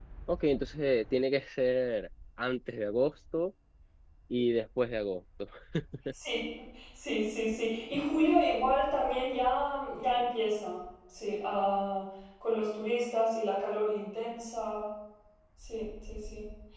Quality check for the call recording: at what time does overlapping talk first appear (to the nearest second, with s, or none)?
none